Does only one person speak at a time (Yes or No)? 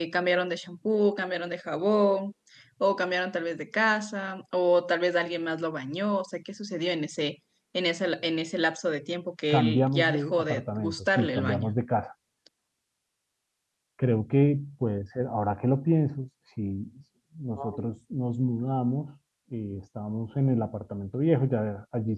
No